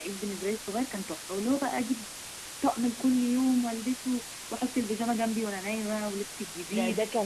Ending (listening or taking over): taking over